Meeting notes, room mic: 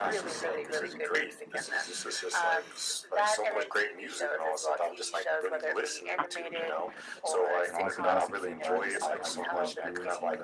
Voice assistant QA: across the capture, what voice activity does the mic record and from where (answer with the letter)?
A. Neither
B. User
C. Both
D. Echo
C